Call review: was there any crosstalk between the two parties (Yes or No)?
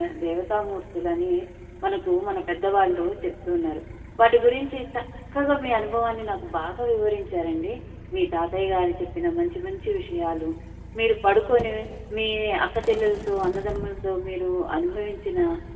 No